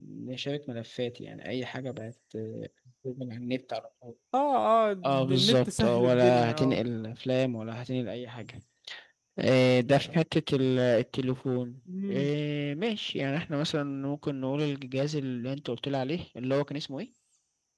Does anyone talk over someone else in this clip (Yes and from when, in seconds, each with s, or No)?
Yes, from 5.3 s